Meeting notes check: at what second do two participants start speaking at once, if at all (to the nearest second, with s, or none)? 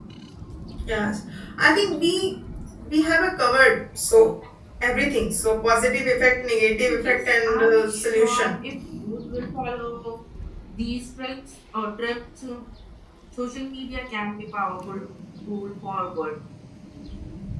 7 s